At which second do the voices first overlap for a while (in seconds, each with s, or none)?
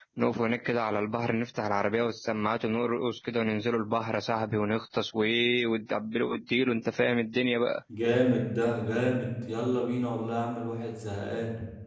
none